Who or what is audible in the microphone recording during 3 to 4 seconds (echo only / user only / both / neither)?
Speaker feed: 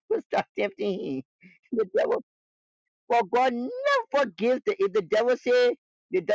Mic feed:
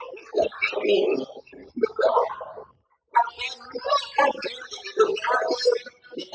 echo only